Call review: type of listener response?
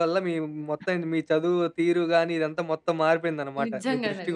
taking over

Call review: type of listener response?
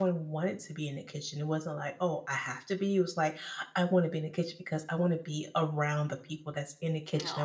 listening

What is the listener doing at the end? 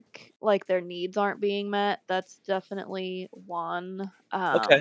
taking over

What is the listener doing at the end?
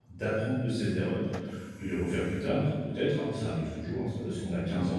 listening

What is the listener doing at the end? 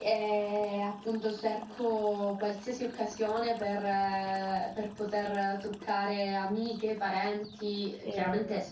listening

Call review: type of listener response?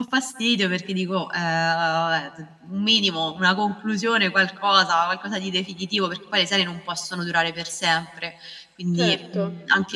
taking over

